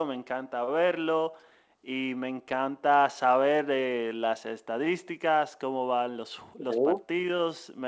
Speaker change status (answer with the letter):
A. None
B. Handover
A